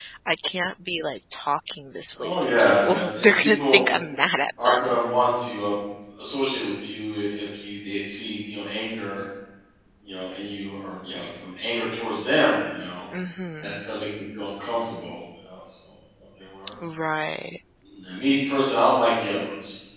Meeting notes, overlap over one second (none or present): present